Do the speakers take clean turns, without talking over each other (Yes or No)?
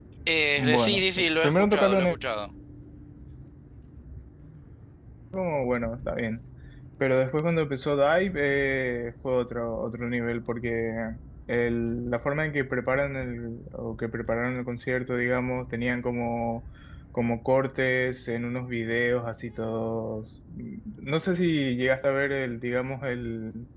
No